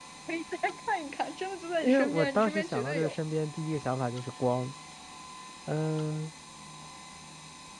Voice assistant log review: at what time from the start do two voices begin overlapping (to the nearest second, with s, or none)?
2 s